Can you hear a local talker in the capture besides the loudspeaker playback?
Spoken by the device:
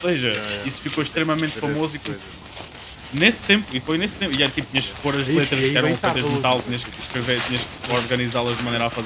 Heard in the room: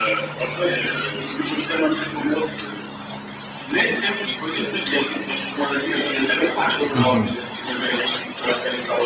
Yes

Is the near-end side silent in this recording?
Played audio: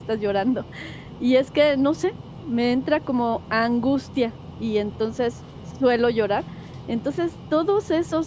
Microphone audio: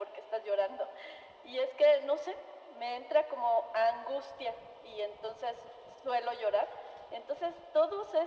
Yes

